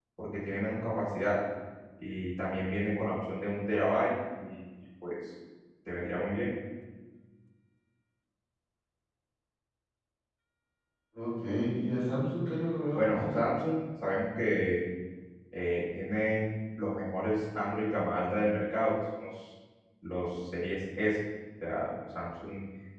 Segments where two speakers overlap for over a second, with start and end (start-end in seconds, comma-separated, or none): none